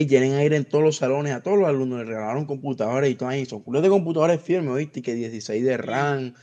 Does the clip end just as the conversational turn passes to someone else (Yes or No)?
No